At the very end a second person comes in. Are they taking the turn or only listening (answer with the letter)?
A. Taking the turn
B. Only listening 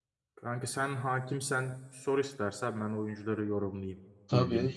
A